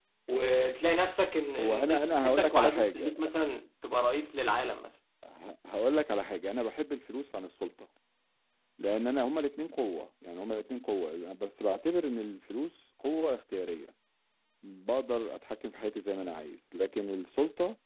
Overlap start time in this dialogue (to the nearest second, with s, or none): 2 s